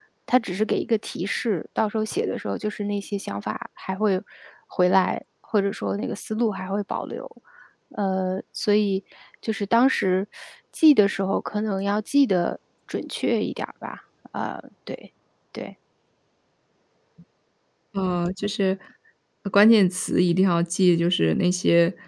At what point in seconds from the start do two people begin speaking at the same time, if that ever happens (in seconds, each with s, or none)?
none